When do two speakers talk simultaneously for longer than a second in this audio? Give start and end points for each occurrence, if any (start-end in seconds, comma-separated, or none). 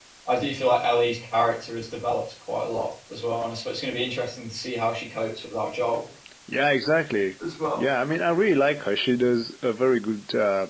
none